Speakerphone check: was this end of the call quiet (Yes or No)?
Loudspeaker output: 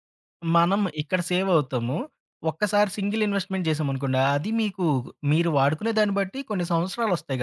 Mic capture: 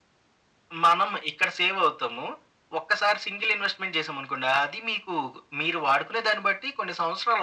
Yes